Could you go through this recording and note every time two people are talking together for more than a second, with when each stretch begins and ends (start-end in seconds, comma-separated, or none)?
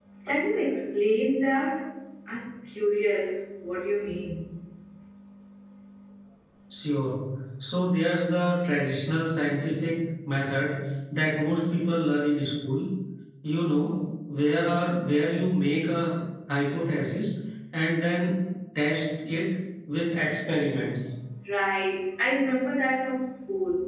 none